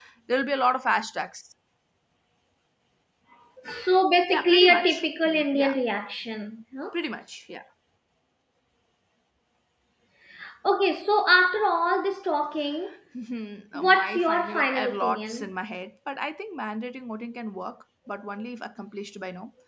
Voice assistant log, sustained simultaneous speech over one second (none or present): present